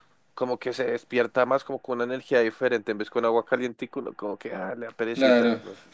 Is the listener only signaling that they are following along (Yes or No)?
No